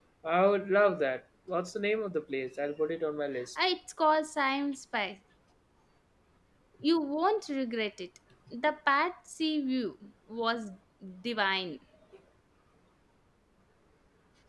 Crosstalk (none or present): none